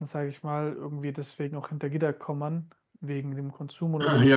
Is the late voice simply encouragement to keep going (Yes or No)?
No